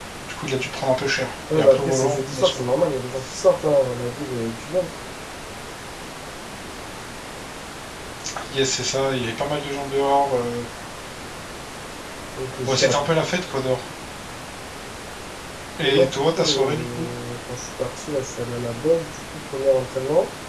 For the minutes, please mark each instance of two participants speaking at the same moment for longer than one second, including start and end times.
1.5-2.7, 15.8-17.1

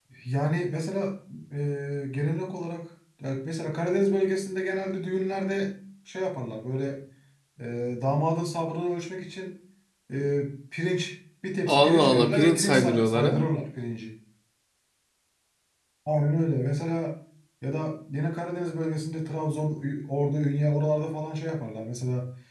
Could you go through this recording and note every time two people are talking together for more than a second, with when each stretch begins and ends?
11.7-13.4

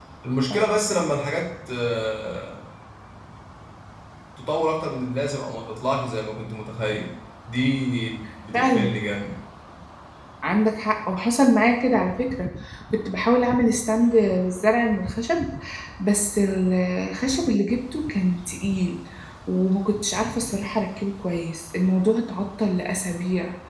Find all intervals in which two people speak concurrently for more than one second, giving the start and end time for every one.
none

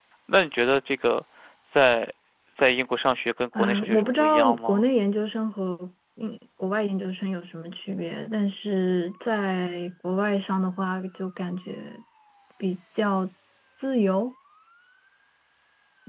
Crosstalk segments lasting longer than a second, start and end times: 3.6-4.8

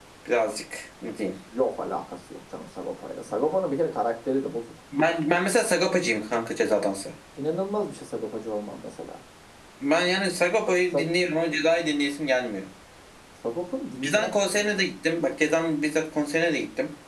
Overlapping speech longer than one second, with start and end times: none

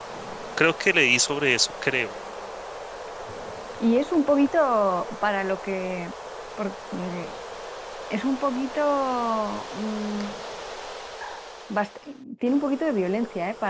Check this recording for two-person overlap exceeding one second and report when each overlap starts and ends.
none

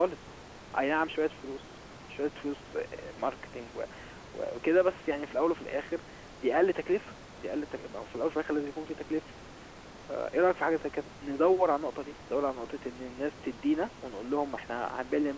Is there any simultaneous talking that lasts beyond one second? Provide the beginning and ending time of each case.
none

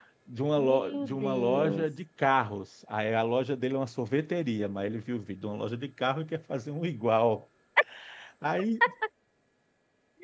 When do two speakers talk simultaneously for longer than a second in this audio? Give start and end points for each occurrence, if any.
0.6-1.8

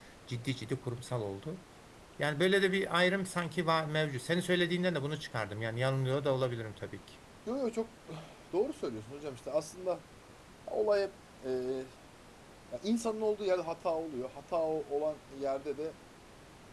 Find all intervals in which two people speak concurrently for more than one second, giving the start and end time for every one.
none

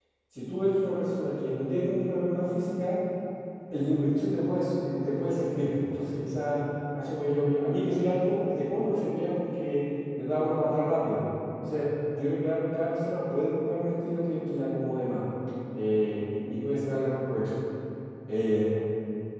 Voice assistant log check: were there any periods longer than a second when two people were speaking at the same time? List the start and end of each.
none

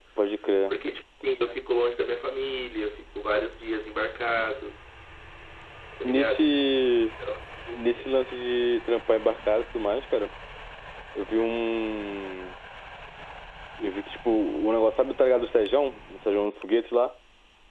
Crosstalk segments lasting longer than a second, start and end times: none

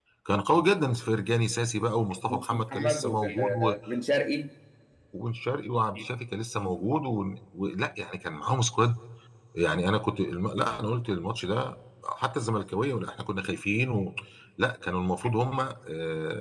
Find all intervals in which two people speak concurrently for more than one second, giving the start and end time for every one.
2.3-3.8

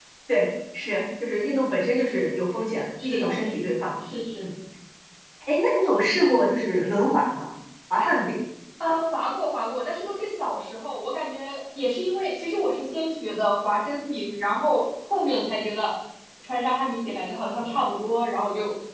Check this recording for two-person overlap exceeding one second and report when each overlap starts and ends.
none

